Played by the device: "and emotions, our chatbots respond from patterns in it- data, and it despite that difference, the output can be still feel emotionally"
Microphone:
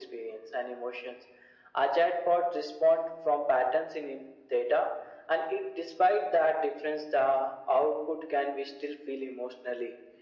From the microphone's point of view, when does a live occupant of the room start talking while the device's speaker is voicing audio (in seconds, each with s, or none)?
none